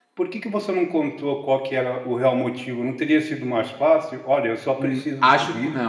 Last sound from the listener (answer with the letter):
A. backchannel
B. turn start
B